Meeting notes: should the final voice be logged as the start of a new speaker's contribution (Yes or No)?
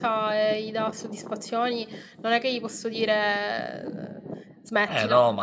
Yes